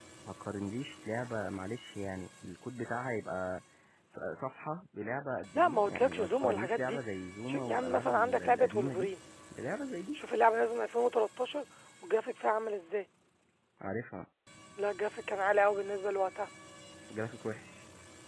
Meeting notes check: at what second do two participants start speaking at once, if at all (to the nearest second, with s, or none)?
6 s